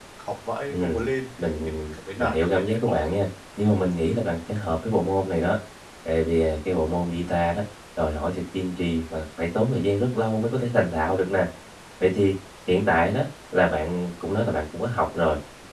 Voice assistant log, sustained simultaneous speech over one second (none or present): present